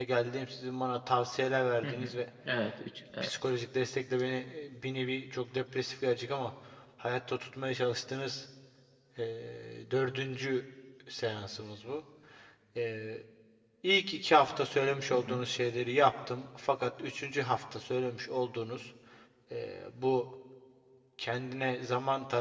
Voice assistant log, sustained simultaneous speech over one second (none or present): none